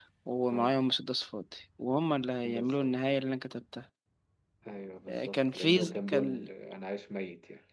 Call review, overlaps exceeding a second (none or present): present